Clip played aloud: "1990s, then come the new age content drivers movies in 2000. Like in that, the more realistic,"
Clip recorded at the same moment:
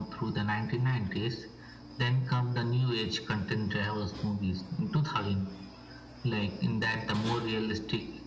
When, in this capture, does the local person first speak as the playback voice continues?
none

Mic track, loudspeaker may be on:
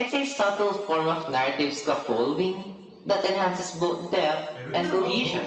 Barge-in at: 4.5 s

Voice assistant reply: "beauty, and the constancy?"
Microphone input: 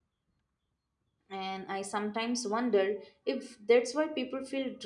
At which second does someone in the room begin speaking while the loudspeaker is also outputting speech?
1.3 s

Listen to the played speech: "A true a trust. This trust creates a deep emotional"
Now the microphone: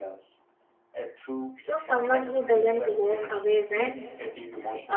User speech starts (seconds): 1.5 s

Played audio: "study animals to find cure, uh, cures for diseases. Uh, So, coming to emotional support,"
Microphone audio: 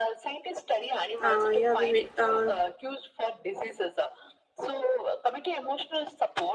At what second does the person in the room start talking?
1.2 s

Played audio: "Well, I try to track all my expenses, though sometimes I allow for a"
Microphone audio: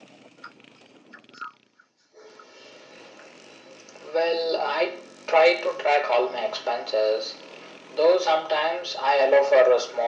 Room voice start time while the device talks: none

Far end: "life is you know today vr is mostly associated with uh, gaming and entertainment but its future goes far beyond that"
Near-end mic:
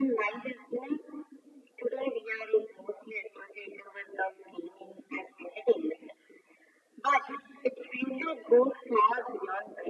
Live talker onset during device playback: none

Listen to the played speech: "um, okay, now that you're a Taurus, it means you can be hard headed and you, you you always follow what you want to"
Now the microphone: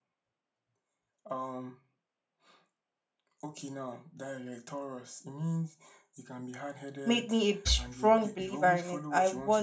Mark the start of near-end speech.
7.0 s

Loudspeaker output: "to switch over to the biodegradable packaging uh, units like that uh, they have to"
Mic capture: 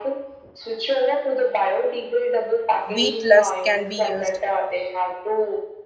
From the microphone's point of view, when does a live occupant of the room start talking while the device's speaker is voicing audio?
2.9 s

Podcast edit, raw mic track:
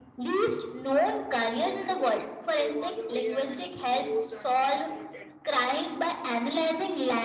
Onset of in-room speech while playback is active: 1.4 s

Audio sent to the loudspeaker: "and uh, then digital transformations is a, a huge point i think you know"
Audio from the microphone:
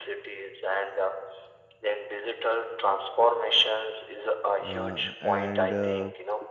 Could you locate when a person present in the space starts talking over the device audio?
4.6 s

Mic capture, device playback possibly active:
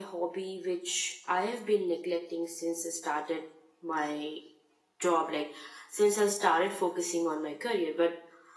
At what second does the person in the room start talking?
none

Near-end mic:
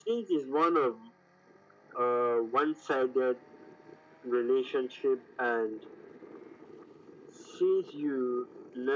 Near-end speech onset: none

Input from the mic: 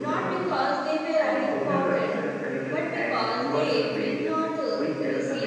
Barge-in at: 3.5 s

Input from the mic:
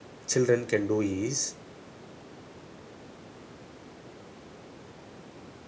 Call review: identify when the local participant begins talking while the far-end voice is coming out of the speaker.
0.3 s

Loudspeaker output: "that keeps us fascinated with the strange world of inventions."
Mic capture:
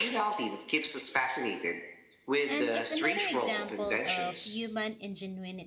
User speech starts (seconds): 2.5 s

